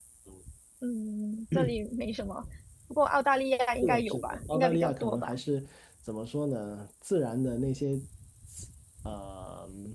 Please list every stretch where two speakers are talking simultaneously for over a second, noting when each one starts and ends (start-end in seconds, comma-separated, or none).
3.8-5.4